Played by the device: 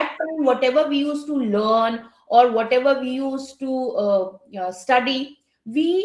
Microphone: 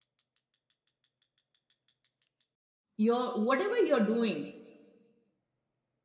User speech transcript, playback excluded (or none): your whatever you're doing,